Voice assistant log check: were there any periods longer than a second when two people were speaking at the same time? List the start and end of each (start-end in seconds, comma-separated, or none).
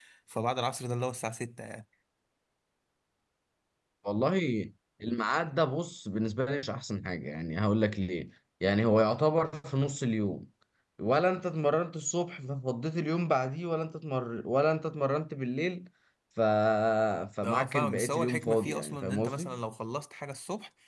17.4-19.5